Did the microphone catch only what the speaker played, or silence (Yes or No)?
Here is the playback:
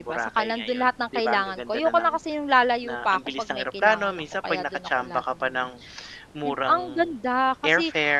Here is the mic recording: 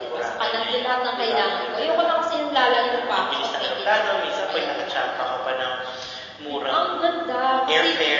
Yes